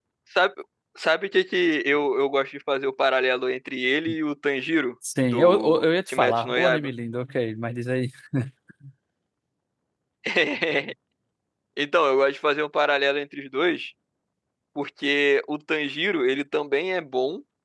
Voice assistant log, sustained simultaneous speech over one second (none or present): present